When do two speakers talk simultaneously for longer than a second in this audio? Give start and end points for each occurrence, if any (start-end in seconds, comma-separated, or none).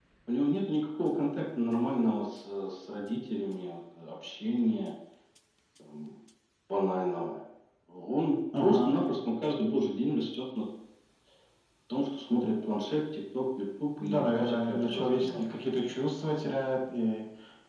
14.0-15.5